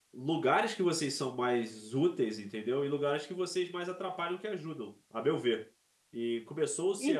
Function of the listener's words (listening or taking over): taking over